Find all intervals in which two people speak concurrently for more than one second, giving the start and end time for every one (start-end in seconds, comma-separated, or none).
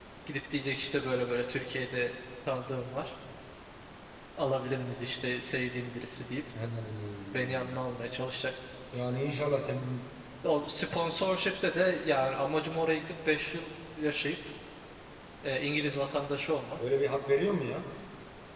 none